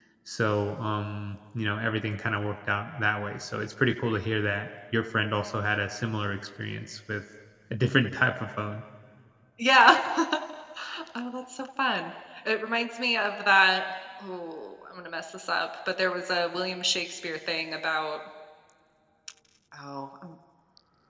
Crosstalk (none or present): none